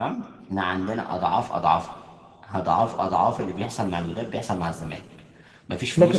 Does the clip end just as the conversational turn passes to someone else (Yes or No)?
Yes